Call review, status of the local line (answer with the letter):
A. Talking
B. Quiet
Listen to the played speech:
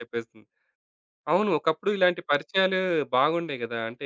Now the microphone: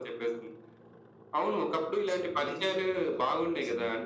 A